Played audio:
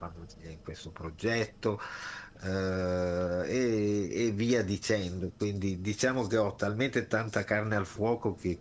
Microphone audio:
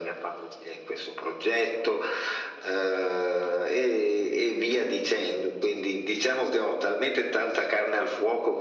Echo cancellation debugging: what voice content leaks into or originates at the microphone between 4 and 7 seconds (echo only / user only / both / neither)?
echo only